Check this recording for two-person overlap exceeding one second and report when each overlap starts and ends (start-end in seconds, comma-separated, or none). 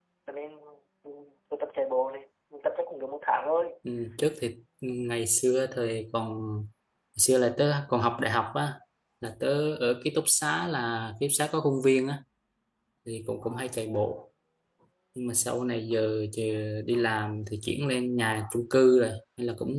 none